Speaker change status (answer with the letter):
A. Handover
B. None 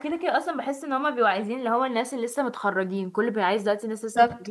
A